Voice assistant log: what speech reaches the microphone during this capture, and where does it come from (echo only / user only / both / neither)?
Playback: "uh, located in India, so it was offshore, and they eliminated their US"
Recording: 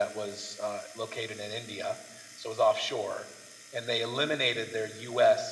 echo only